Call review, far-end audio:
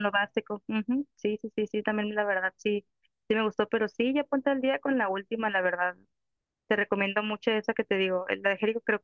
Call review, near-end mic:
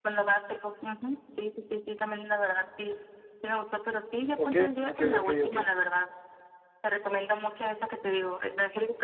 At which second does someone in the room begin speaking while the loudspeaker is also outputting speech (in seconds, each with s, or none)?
4.5 s